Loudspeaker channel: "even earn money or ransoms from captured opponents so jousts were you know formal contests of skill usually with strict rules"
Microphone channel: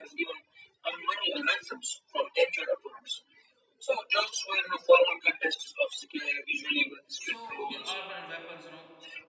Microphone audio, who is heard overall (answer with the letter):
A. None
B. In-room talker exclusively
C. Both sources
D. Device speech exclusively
C